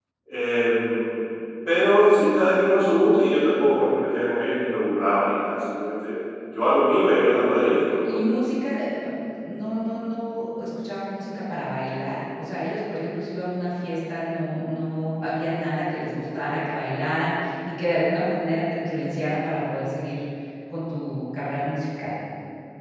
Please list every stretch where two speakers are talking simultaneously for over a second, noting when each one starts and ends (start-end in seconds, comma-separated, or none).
none